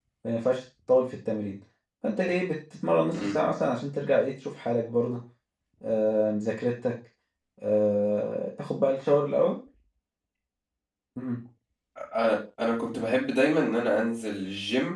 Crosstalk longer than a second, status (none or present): none